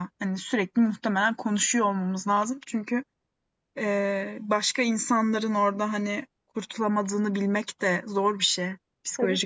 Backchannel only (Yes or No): No